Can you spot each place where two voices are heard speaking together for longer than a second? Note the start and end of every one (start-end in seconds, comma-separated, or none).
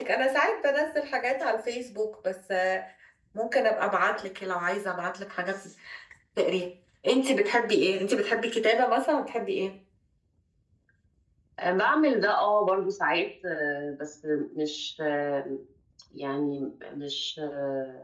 none